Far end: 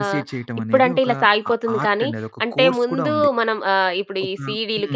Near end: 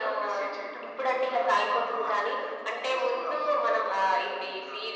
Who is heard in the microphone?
echo only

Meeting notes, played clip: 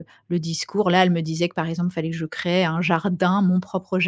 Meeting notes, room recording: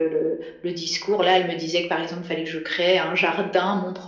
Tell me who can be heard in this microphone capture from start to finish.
echo only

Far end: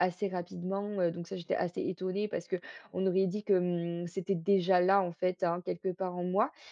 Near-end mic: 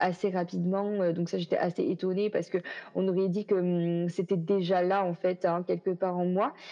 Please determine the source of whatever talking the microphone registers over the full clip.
echo only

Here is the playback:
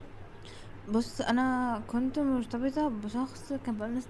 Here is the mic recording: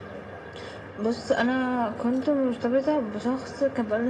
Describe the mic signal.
echo only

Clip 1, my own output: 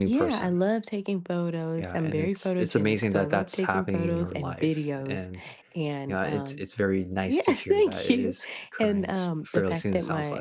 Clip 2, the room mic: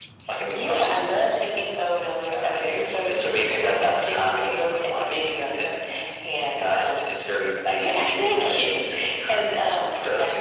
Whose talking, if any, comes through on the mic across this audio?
echo only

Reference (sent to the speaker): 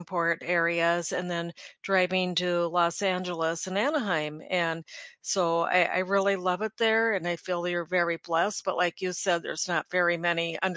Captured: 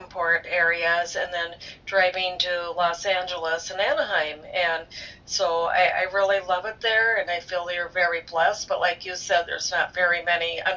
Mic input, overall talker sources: echo only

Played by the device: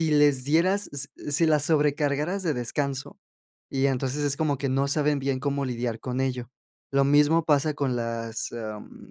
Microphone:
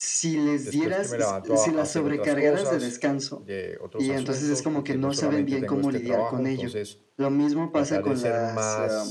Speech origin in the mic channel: both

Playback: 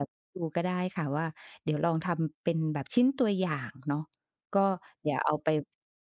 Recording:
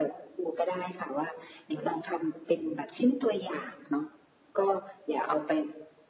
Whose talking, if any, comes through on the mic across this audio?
echo only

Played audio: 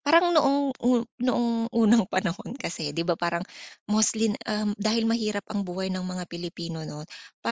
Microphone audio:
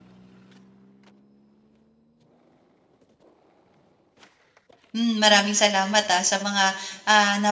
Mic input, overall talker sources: user only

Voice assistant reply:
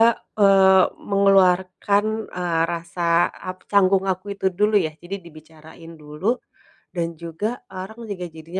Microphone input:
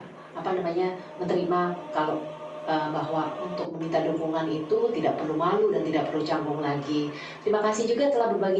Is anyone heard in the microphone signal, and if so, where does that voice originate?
user only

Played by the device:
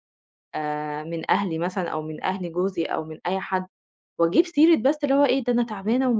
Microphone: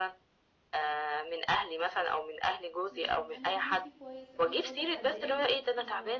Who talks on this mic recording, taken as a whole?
both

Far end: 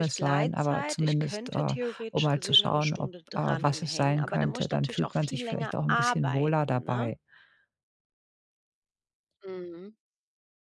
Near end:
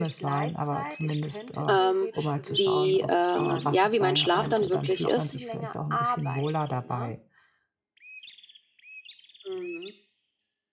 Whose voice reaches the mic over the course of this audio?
both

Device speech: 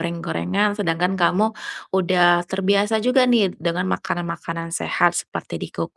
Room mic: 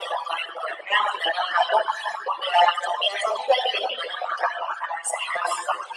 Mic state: echo only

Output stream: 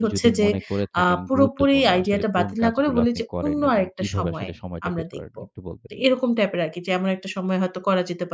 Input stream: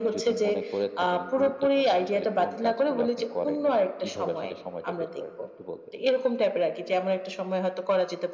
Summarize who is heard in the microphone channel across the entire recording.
echo only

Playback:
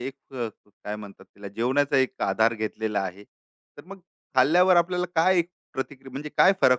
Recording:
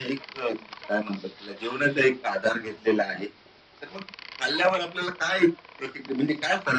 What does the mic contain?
echo only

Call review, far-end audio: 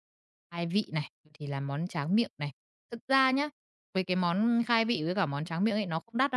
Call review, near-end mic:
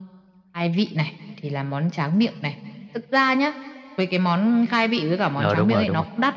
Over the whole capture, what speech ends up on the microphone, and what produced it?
both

